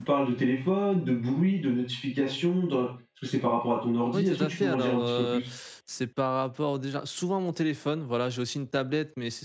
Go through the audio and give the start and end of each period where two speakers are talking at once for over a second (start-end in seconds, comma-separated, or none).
4.1-5.4